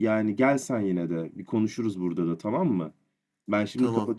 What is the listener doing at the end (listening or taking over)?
listening